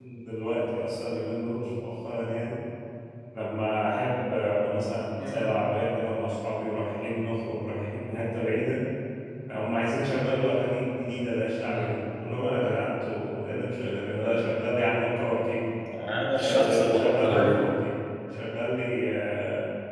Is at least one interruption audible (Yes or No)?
Yes